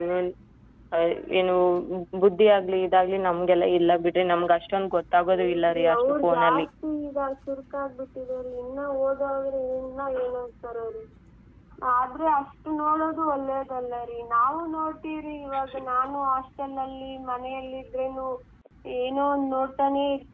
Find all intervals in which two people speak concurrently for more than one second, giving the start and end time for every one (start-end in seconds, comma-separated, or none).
5.3-6.7